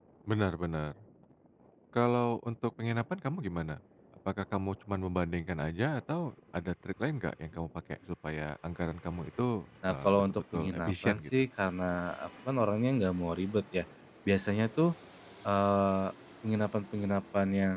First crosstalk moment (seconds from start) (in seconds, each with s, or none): 9.9 s